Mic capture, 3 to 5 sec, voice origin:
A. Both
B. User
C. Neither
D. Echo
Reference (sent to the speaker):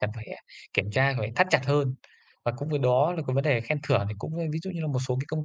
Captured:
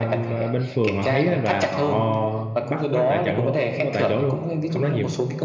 A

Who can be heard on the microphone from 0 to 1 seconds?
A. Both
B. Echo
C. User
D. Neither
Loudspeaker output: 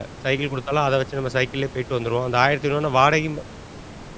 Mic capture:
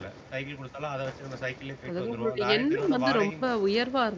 B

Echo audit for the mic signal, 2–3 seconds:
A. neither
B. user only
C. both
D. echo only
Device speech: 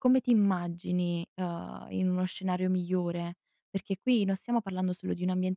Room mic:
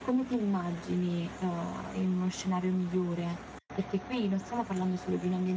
D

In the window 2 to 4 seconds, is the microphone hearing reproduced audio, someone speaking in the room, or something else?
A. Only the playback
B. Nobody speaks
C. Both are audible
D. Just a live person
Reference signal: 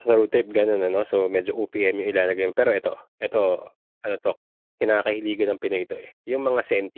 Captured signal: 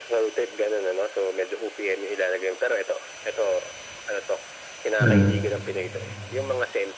A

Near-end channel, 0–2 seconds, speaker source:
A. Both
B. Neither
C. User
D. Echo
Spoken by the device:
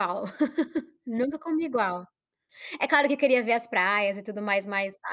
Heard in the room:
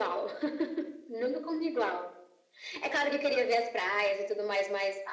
D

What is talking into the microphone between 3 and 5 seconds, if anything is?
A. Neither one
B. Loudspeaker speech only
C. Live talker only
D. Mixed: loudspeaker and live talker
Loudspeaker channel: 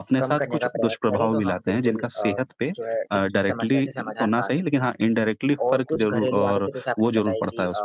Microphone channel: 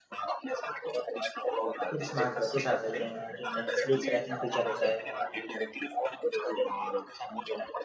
D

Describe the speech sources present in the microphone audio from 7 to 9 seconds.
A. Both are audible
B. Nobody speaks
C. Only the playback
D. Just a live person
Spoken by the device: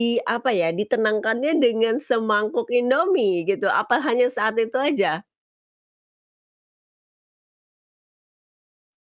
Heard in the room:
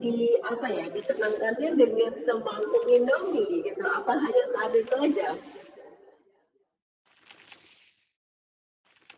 B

